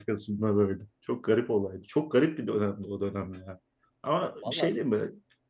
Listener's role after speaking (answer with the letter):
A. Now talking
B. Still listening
B